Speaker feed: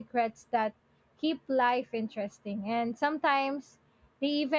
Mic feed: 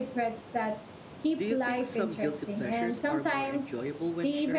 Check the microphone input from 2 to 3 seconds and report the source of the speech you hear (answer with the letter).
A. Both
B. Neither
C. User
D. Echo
A